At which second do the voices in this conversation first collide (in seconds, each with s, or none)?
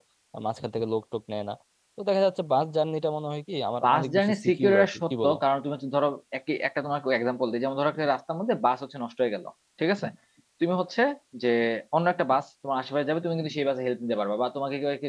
3.8 s